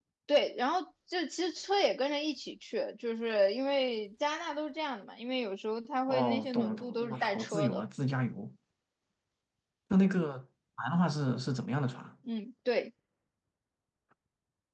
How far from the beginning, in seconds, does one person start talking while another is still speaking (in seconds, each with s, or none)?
6.1 s